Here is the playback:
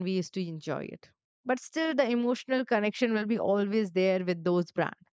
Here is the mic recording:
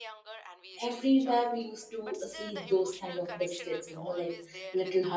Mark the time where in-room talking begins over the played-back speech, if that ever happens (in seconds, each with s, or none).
0.8 s